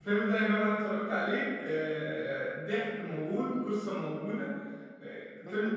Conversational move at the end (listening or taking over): taking over